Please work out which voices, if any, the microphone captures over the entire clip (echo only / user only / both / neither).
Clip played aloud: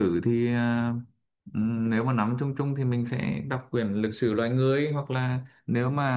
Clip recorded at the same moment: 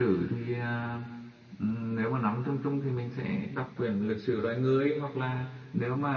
echo only